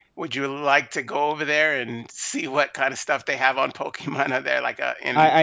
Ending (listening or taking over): taking over